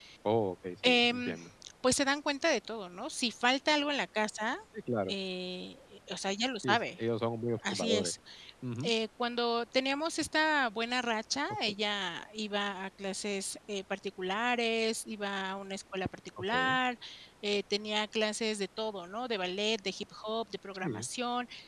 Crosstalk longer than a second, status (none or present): none